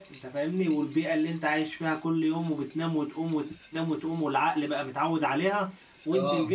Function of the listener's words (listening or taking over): listening